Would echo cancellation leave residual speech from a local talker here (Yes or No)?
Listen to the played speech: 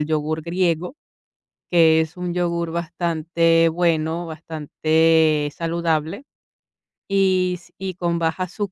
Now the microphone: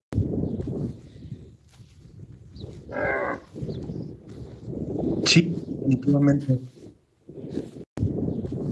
Yes